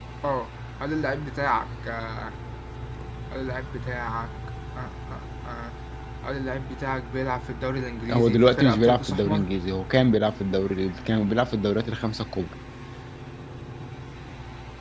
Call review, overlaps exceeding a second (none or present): present